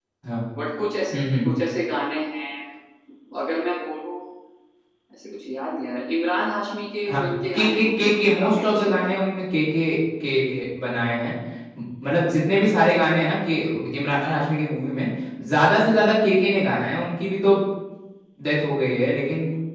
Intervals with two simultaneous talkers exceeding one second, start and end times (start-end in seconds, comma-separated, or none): 7.1-9.1